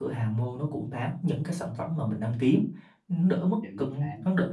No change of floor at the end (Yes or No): Yes